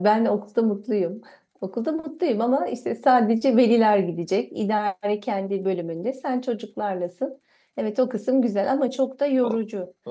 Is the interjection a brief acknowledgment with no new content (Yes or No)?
No